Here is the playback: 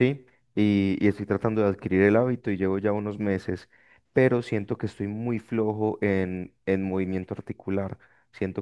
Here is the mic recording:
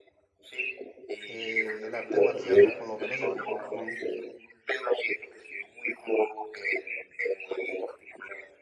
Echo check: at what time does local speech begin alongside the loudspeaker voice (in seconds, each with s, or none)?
1.3 s